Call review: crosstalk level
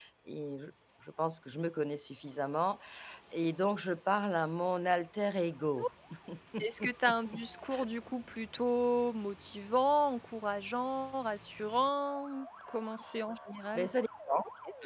none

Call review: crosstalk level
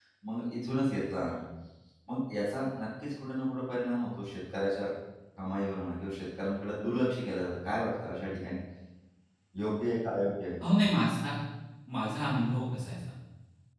none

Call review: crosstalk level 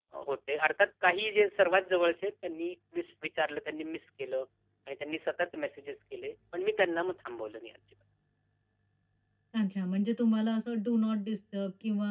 none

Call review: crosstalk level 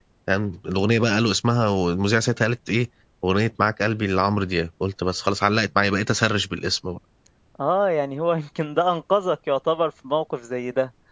none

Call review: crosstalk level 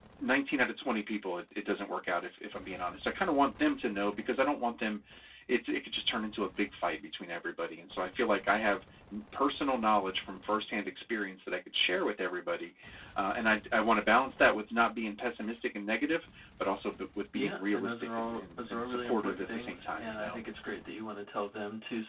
present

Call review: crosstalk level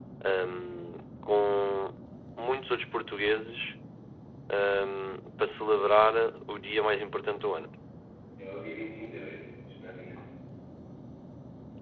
none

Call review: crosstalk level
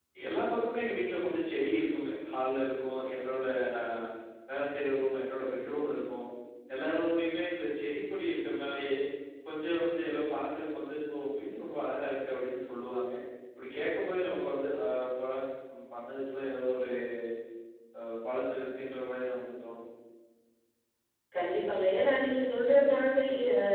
none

